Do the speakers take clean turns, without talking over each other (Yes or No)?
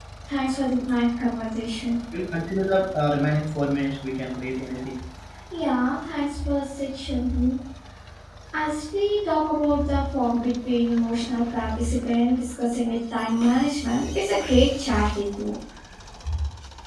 Yes